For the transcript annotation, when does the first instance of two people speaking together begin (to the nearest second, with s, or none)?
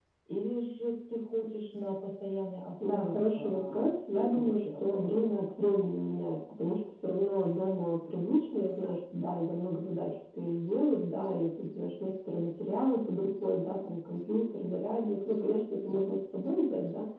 3 s